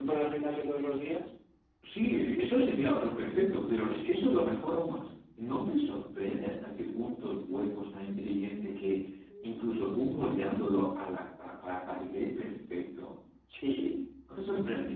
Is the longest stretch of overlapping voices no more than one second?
Yes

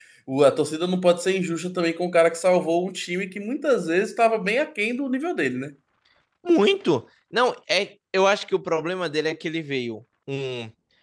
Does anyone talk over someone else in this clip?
No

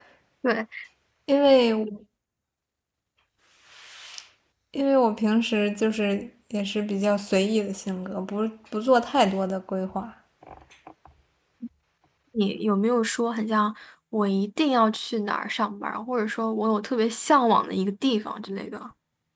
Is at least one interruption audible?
No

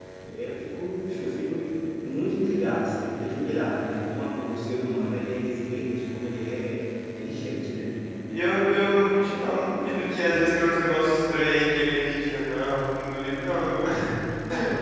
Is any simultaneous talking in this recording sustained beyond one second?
No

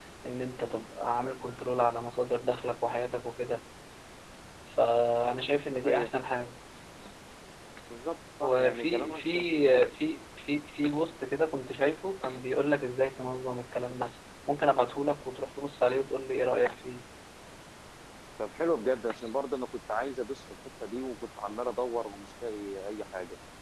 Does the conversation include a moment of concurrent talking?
Yes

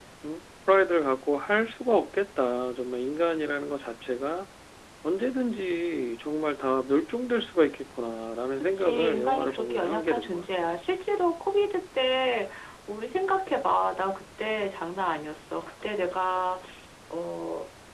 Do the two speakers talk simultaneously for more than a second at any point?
Yes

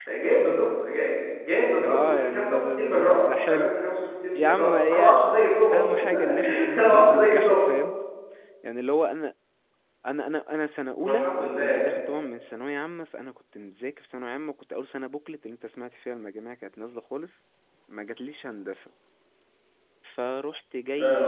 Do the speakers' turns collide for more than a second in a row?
Yes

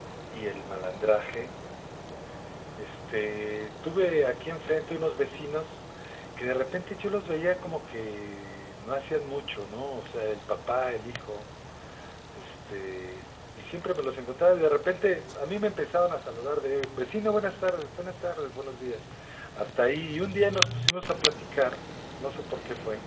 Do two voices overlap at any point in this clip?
No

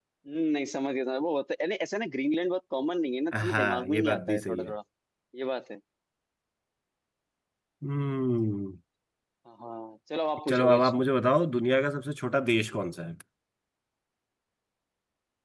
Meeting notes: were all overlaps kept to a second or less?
No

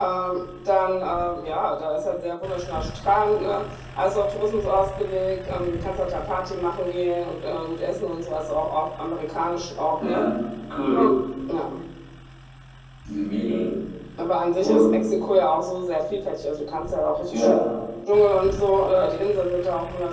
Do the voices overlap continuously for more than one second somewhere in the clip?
No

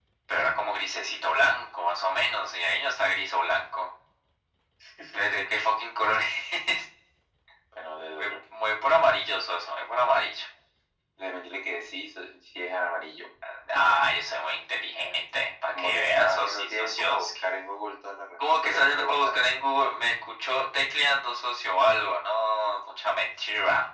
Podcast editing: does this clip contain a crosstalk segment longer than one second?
Yes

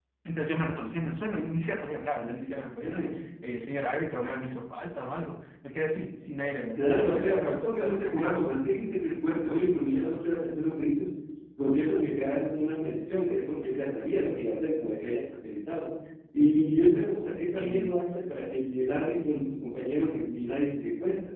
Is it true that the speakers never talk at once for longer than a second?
No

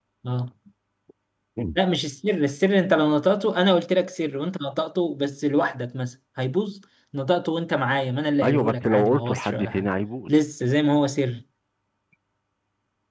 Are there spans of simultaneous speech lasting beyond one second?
Yes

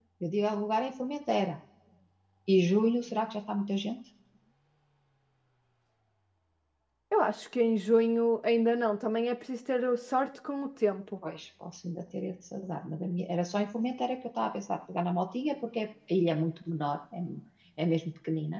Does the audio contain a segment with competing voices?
No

